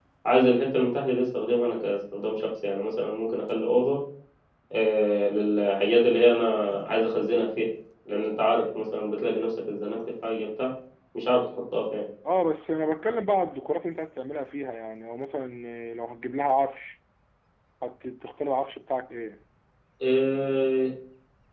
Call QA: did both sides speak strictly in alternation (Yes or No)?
Yes